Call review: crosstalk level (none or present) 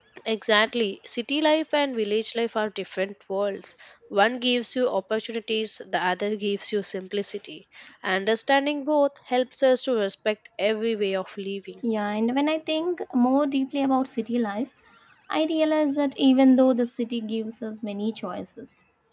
none